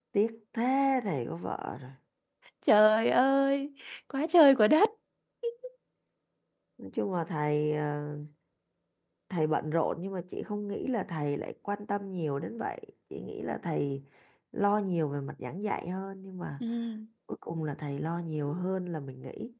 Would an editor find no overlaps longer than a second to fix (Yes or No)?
Yes